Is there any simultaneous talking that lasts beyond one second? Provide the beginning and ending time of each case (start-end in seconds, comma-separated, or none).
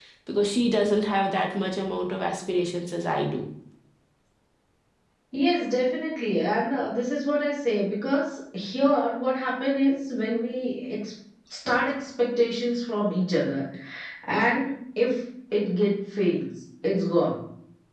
none